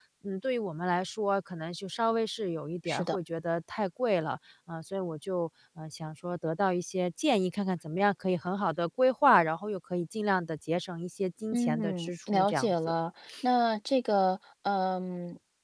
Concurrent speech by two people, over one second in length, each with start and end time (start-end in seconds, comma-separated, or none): 11.5-12.7